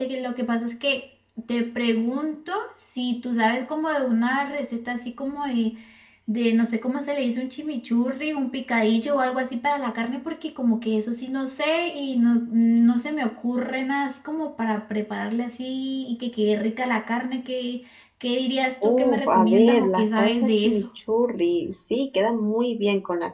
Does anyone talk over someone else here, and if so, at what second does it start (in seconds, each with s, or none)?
18.8 s